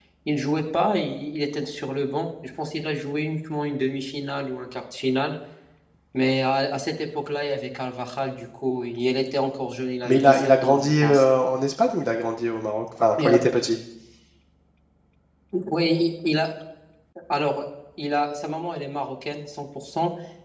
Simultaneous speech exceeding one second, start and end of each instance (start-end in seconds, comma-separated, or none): 10.0-11.2